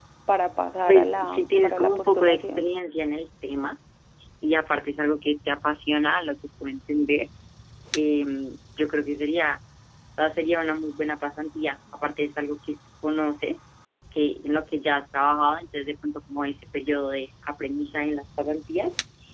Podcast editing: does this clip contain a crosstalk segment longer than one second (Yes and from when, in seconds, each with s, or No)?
Yes, from 0.9 s